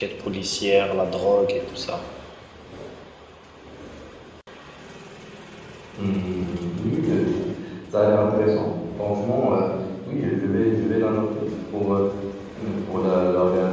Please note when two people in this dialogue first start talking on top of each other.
none

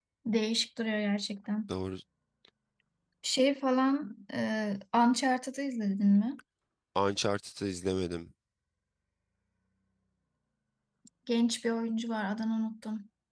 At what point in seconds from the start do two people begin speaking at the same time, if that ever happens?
none

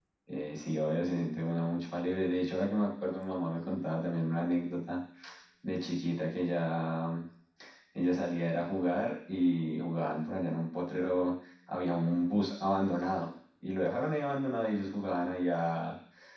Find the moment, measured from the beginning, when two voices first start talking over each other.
none

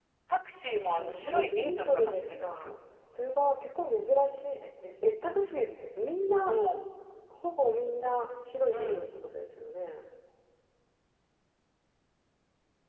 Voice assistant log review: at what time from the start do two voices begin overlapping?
0.7 s

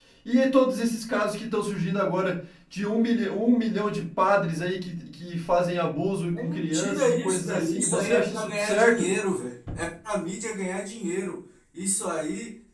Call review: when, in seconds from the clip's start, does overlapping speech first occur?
6.3 s

